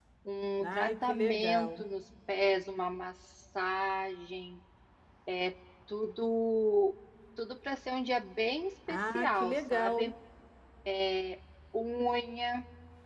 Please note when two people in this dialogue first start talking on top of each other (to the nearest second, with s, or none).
1 s